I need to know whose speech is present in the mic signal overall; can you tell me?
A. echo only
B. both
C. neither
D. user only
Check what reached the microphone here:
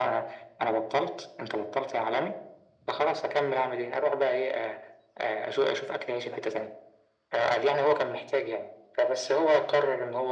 A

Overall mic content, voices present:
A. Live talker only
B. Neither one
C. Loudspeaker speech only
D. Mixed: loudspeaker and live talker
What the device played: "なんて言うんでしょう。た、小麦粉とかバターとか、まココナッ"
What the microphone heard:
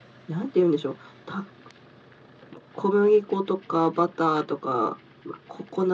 C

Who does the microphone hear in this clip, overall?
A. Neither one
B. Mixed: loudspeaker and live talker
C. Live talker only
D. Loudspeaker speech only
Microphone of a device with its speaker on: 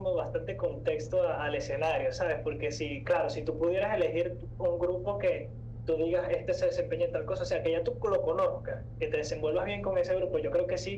D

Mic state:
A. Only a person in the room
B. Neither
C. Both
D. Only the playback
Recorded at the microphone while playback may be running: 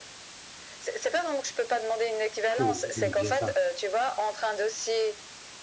C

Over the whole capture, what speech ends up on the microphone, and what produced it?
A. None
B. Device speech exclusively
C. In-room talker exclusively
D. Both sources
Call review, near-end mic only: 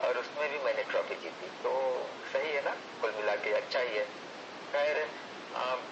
B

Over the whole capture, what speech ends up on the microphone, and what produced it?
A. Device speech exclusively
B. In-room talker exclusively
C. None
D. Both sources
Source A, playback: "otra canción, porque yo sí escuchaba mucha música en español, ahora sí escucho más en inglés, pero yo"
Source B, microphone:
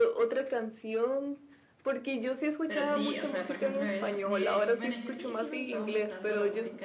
D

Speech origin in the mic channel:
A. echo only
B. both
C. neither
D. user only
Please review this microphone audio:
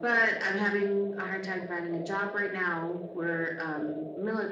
A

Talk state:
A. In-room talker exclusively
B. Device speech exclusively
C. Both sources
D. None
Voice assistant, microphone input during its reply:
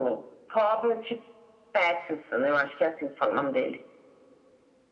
B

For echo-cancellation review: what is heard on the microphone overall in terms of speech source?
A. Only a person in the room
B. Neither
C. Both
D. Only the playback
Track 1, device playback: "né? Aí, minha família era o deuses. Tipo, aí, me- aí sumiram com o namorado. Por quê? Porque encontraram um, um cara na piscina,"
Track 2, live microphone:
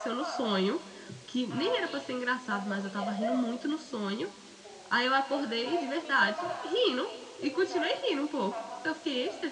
C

